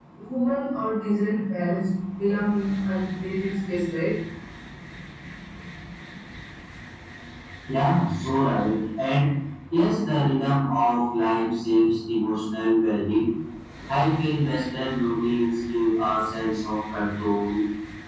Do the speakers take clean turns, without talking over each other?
Yes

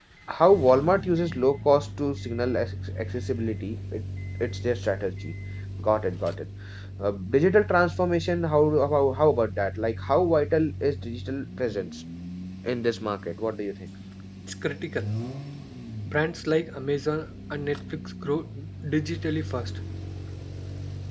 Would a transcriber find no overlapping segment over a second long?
Yes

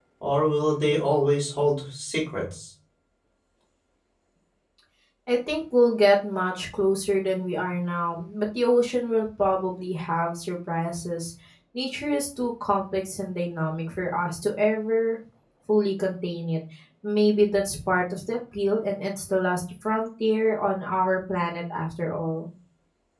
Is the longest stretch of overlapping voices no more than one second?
Yes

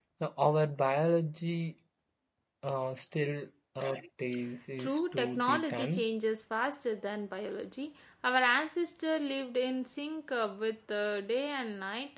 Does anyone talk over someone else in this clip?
Yes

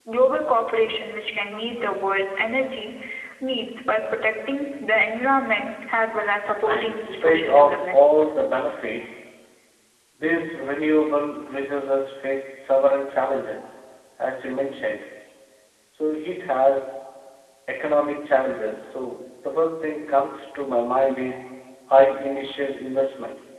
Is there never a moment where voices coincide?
No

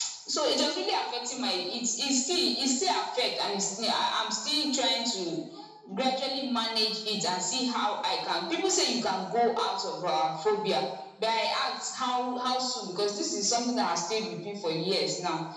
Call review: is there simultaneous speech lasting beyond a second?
No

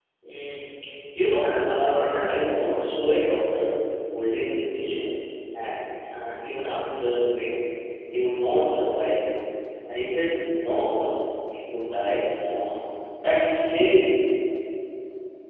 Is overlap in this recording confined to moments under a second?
No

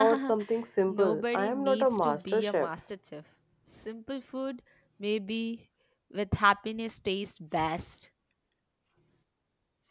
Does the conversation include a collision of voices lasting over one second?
Yes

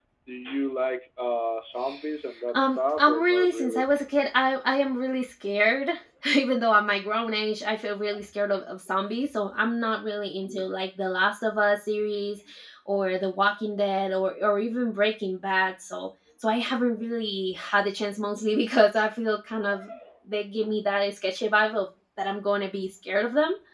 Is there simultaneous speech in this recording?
Yes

